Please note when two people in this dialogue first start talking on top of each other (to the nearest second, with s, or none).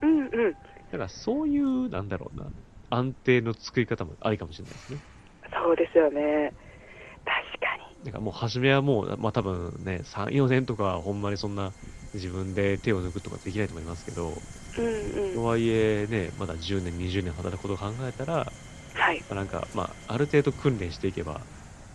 none